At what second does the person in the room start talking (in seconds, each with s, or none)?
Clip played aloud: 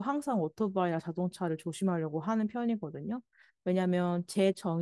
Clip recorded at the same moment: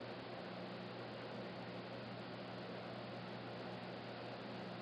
none